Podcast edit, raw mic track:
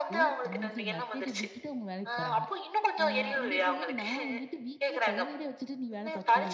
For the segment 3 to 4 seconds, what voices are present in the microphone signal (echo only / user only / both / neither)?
both